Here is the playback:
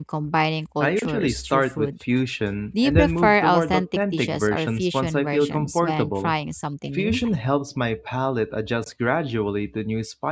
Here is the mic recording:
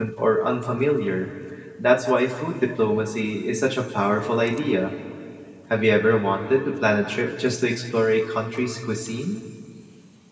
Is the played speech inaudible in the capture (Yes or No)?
Yes